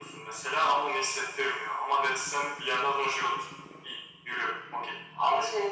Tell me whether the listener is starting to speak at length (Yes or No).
Yes